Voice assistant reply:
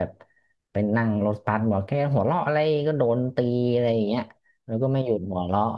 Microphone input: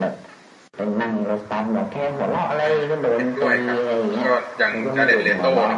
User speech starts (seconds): 2.6 s

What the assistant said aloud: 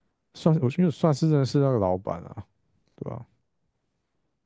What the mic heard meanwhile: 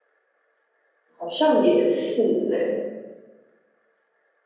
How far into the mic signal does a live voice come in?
1.2 s

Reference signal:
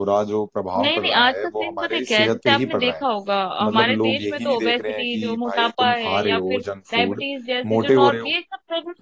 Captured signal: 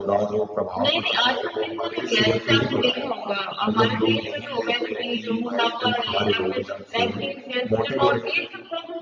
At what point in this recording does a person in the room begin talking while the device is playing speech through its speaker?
none

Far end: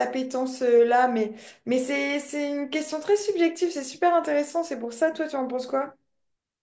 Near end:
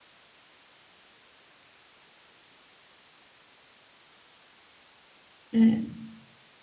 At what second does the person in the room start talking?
5.5 s

